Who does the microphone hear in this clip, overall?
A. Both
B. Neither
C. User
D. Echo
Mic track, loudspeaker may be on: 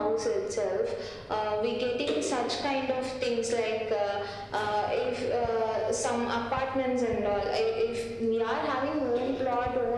D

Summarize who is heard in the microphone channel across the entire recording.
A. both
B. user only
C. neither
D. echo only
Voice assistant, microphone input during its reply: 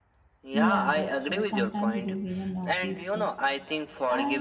A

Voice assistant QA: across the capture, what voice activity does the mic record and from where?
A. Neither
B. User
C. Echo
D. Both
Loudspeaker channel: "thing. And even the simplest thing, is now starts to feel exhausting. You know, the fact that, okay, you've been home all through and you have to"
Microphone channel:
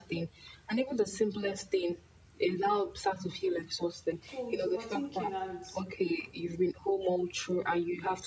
D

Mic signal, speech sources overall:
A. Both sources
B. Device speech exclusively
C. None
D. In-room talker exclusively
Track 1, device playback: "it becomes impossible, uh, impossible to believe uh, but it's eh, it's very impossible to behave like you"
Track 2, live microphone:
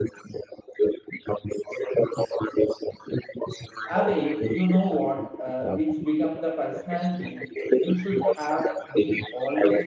A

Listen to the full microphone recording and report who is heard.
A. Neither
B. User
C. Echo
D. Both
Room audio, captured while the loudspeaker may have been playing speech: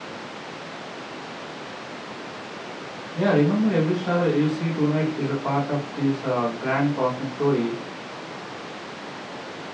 B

